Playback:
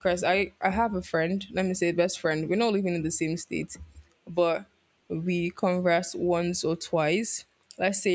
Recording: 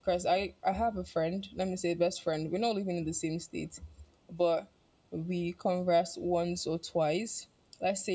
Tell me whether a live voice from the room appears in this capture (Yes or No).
No